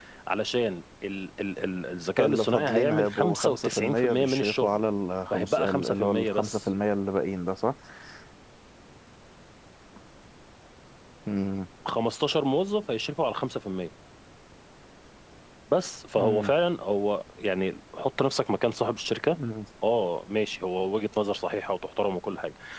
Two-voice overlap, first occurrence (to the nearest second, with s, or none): 2 s